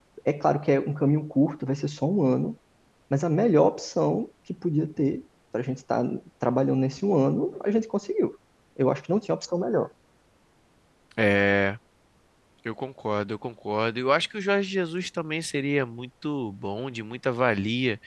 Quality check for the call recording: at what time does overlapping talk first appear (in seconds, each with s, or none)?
none